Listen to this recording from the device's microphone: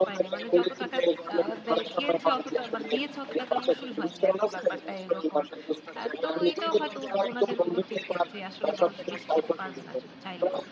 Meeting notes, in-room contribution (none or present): present